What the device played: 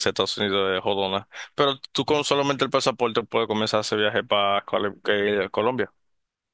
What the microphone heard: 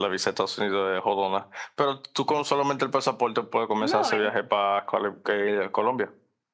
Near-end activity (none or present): present